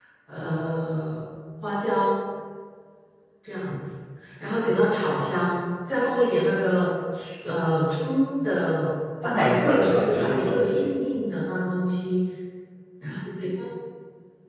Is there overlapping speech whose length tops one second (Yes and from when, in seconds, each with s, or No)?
Yes, from 9.2 s